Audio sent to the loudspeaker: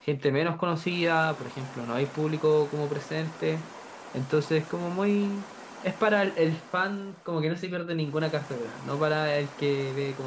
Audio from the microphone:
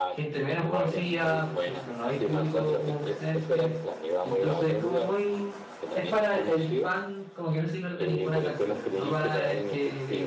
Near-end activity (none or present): present